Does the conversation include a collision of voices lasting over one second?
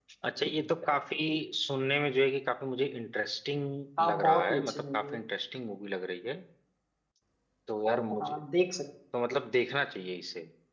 Yes, from 4.0 s

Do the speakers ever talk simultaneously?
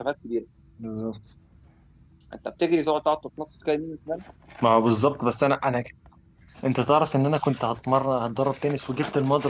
No

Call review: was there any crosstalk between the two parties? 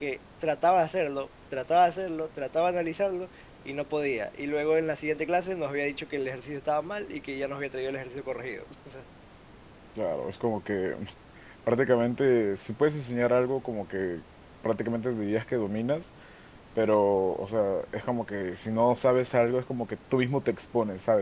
No

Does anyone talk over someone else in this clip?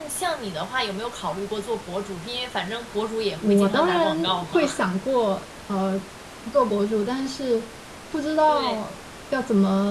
Yes, from 3.4 s

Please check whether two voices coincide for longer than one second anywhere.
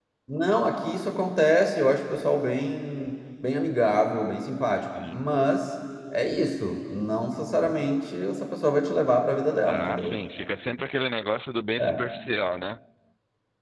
No

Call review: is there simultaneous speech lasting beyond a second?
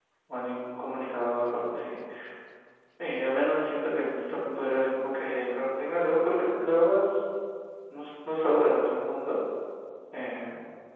No

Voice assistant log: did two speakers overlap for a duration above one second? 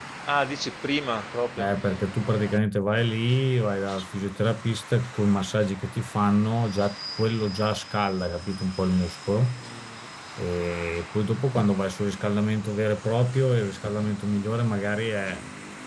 No

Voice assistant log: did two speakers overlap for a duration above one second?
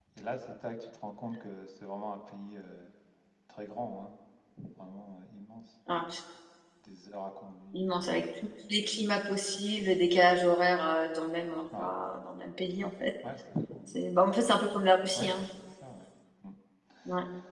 No

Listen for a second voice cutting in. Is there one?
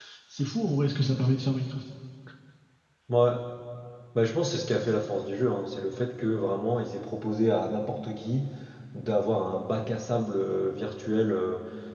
No

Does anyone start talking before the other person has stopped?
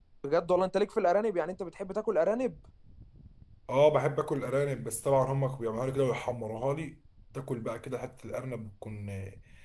No

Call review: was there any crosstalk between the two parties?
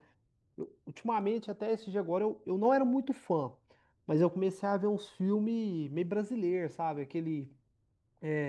No

